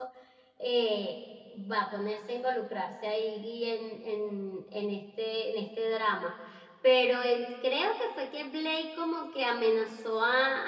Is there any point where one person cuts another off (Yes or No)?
No